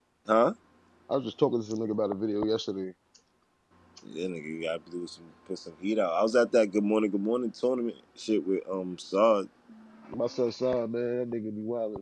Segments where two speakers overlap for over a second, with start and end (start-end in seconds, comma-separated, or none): none